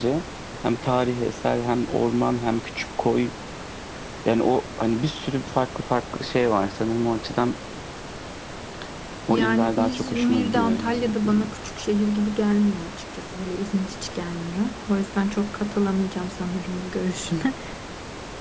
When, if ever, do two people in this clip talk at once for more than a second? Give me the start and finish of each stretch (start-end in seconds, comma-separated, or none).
9.3-11.5